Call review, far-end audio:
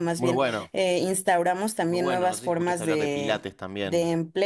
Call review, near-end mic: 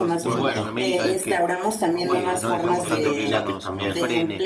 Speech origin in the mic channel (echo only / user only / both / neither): both